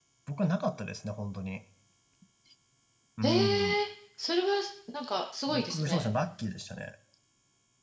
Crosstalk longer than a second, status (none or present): none